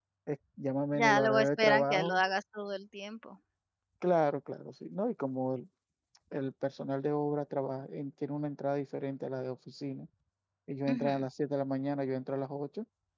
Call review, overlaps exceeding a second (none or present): present